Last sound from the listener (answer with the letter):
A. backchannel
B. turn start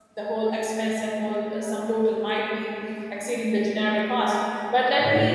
A